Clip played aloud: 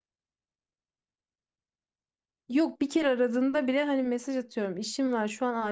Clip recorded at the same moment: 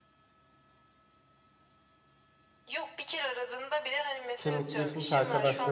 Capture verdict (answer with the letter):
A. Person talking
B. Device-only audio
A